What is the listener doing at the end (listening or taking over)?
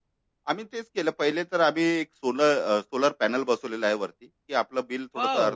taking over